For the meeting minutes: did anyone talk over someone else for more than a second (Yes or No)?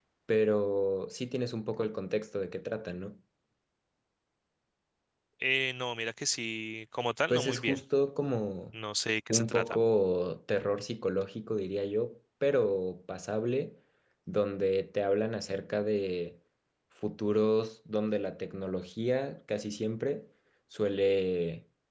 No